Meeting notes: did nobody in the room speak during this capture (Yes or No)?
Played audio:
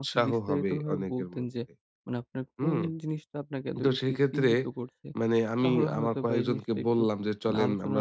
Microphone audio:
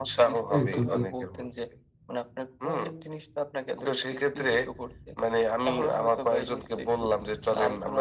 No